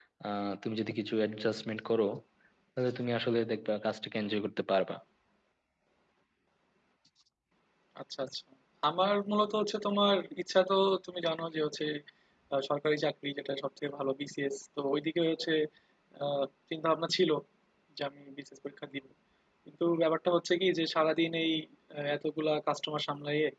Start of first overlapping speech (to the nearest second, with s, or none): none